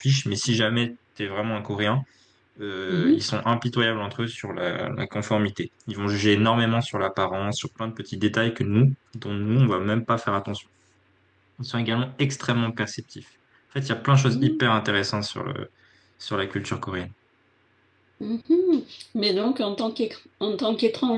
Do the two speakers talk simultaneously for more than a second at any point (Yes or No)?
No